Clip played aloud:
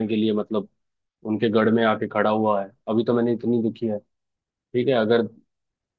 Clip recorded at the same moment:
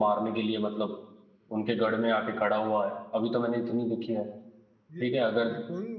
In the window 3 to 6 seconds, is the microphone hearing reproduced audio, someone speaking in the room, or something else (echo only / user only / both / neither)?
both